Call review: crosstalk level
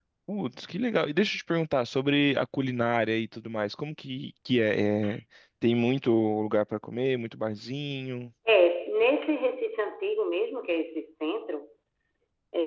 none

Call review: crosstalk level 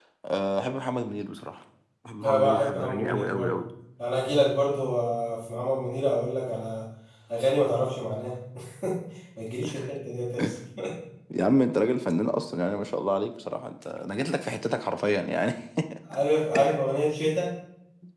present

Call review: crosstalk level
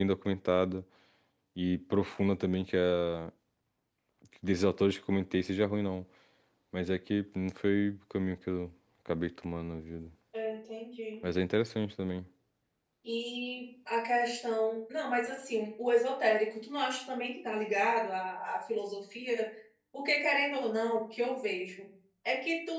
none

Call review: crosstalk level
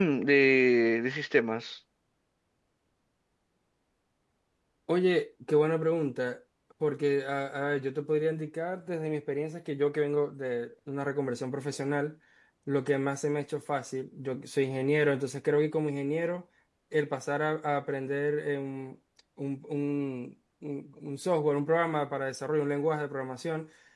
none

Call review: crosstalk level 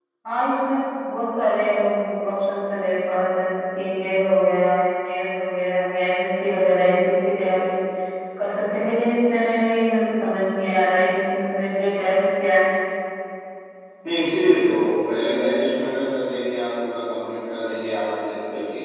none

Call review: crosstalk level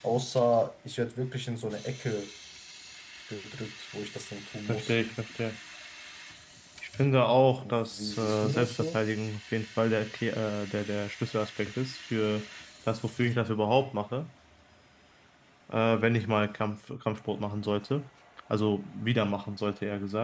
present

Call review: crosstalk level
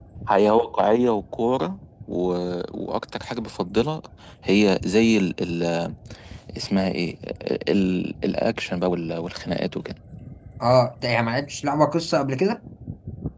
none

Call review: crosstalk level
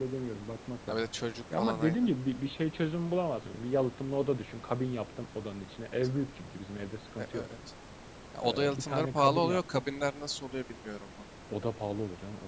present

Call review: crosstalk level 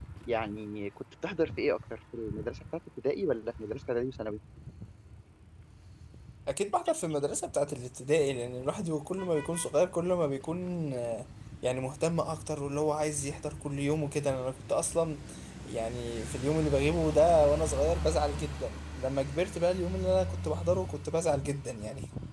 none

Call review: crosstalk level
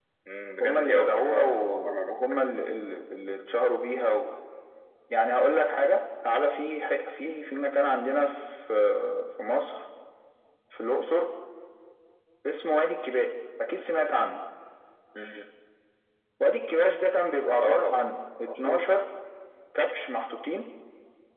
present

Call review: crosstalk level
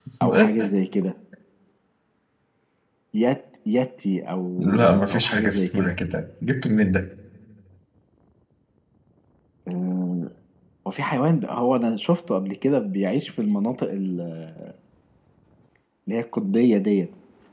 present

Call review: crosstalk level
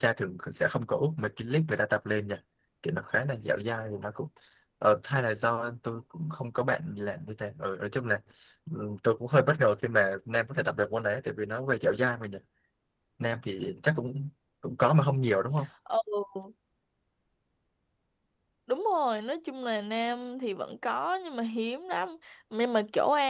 none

